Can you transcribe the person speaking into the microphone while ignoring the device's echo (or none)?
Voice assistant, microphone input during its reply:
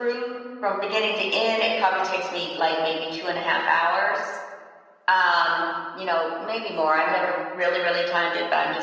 none